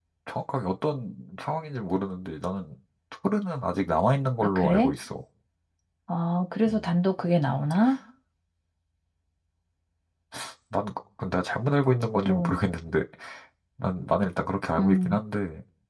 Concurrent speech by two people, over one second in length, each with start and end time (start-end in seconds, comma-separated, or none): none